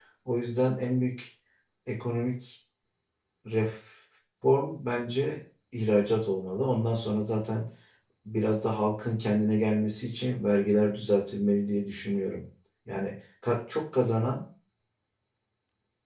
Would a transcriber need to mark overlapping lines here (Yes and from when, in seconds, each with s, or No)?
No